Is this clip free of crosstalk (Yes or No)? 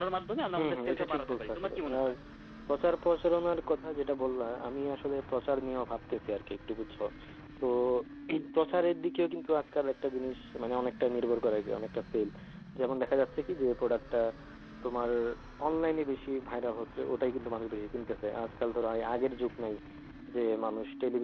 No